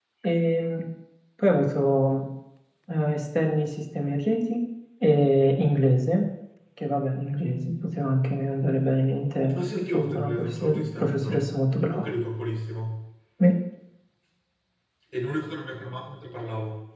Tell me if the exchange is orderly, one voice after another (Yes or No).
No